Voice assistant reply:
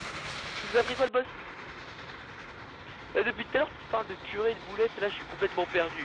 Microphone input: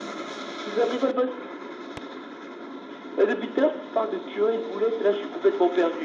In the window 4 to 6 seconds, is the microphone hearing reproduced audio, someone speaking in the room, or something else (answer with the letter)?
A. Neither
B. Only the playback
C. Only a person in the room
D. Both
B